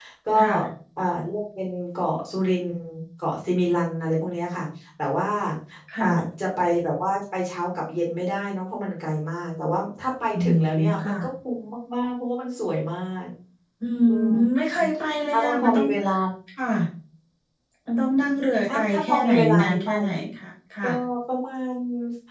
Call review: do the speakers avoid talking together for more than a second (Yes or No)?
No